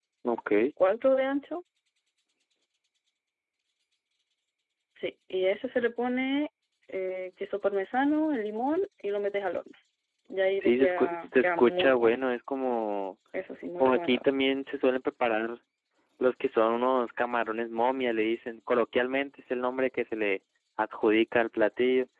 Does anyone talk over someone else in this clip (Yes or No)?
Yes